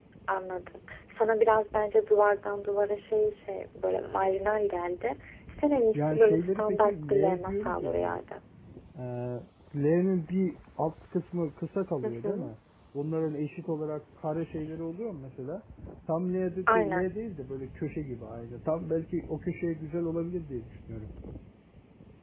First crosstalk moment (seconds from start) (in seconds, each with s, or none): 5.9 s